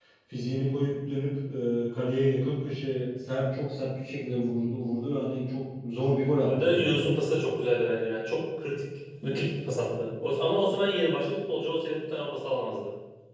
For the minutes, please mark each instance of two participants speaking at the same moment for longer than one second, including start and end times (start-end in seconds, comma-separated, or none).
none